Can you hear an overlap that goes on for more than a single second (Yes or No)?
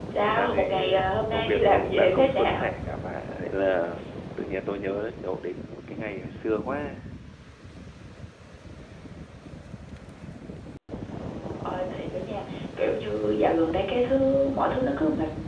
Yes